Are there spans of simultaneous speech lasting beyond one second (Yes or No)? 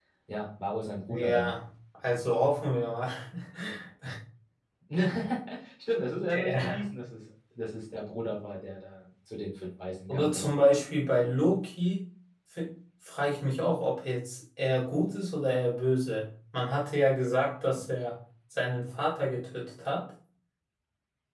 No